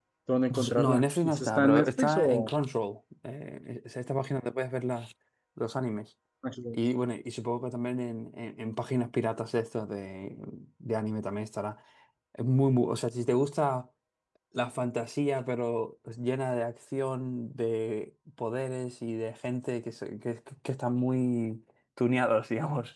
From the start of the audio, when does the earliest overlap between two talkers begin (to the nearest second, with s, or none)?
1 s